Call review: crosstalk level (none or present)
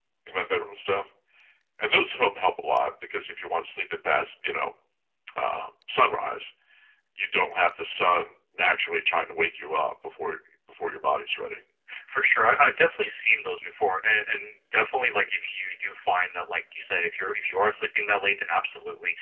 none